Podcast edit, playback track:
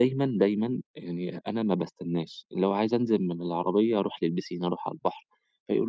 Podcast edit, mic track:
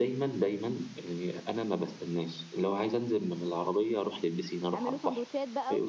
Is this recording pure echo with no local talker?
No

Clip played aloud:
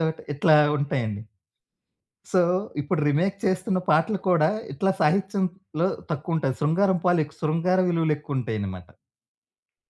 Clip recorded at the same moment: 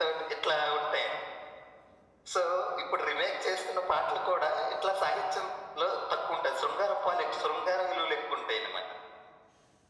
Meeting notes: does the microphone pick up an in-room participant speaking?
No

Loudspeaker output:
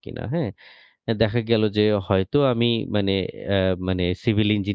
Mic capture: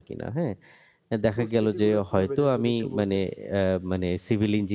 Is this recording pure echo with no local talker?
No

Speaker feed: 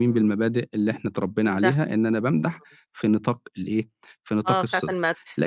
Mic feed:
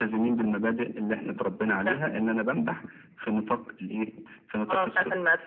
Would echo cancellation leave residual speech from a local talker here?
No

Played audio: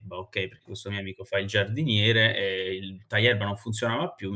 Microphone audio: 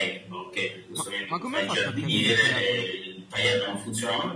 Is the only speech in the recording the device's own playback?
No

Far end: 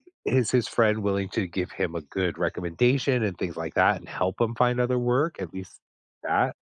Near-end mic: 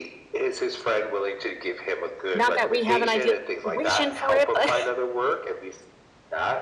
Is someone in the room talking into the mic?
Yes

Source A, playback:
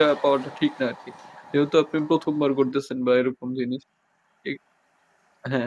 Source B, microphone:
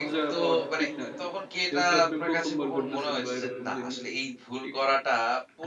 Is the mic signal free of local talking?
No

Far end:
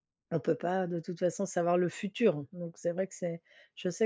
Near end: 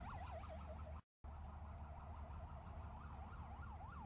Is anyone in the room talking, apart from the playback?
No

